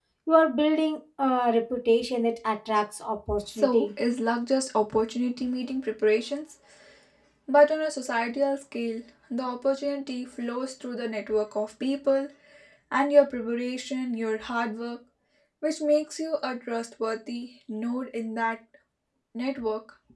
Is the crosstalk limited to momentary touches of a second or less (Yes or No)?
Yes